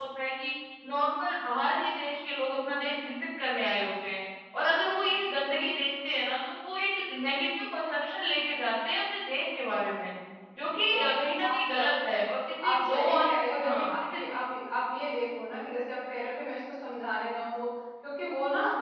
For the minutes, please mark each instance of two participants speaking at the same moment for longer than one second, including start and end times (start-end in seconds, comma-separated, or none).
12.7-14.0